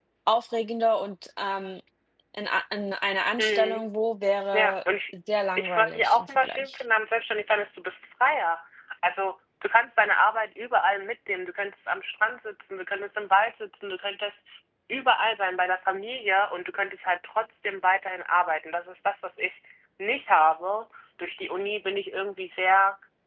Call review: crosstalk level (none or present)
present